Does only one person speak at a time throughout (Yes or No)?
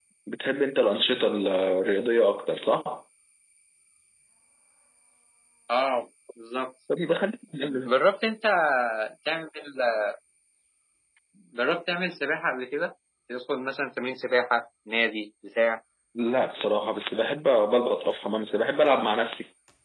Yes